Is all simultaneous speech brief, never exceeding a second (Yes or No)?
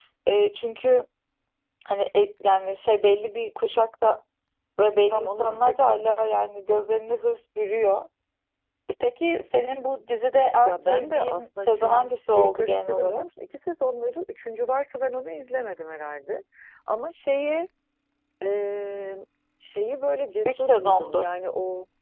No